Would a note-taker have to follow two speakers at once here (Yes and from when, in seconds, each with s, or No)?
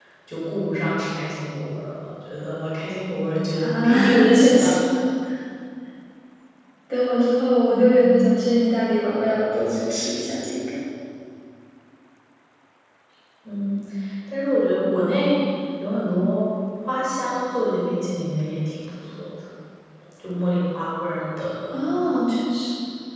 Yes, from 3.6 s